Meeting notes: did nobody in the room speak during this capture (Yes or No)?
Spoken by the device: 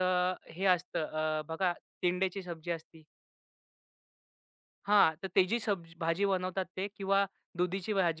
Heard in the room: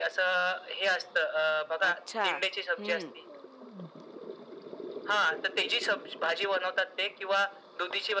No